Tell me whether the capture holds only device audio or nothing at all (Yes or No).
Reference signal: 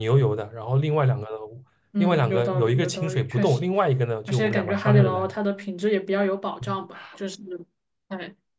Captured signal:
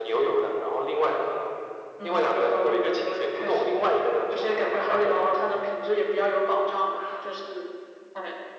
Yes